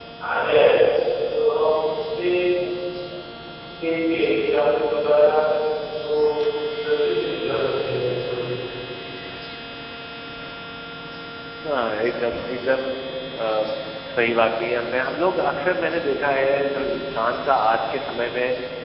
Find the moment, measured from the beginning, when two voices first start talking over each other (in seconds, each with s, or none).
none